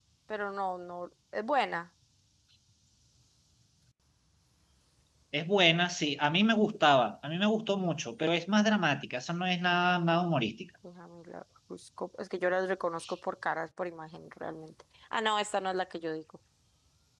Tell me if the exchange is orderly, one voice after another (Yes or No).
Yes